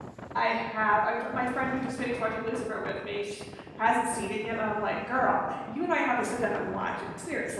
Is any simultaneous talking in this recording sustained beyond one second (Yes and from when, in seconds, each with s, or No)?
No